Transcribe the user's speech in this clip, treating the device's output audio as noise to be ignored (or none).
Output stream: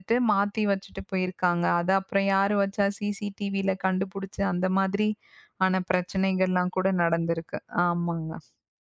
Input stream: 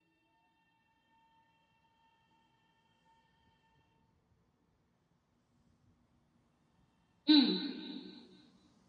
ம்.